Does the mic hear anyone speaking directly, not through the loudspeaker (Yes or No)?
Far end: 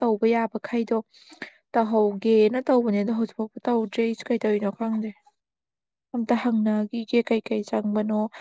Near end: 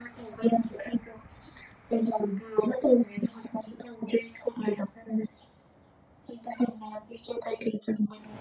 No